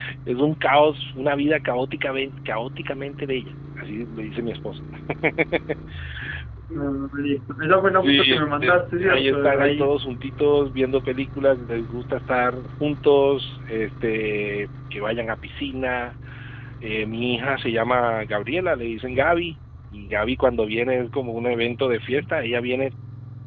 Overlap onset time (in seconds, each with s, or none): 7.9 s